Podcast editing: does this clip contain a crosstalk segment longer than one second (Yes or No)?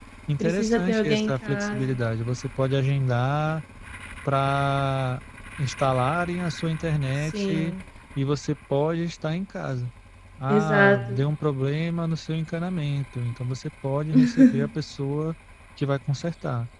Yes